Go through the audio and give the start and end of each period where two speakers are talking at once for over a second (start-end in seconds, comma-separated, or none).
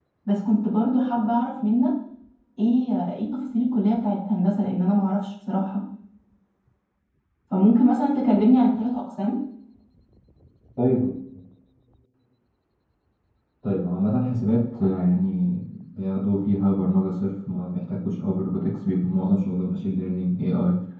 none